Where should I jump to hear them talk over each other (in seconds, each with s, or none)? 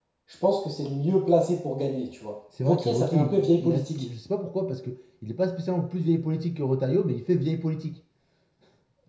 2.6 s